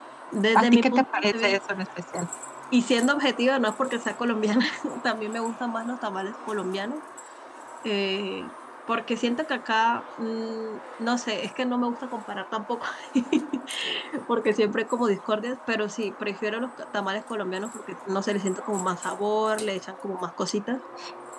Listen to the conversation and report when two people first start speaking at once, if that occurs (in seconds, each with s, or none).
0.5 s